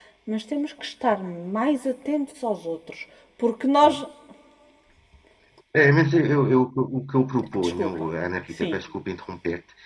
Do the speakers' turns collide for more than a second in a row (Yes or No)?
No